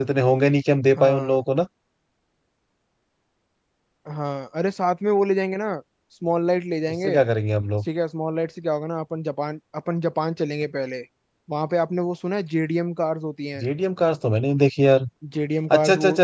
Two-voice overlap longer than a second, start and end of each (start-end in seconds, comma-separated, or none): none